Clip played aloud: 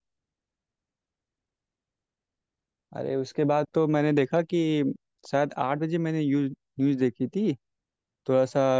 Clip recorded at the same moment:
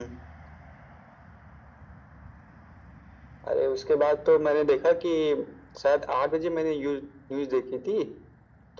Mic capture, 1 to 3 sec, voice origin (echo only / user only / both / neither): neither